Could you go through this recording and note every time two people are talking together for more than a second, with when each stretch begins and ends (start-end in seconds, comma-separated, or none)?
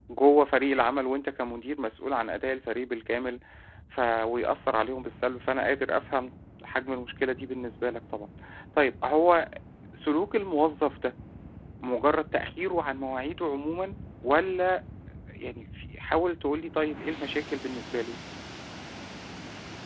none